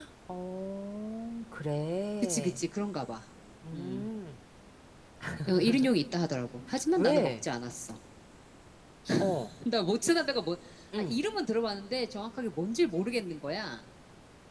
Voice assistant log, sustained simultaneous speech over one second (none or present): none